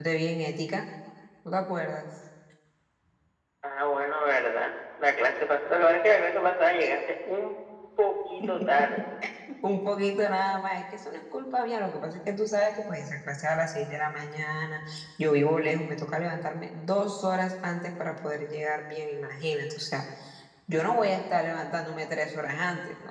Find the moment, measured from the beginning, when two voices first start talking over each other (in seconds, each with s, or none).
none